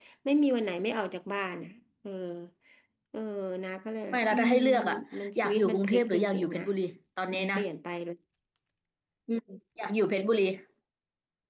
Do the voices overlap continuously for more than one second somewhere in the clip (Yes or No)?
Yes